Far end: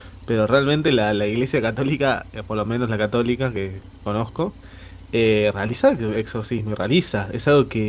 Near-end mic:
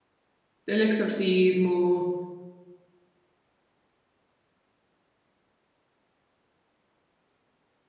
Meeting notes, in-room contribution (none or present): present